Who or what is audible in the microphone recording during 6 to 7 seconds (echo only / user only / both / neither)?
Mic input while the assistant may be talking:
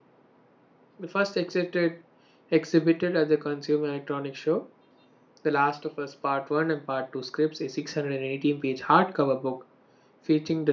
user only